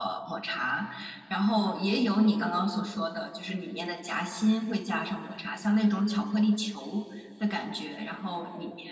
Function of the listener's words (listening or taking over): listening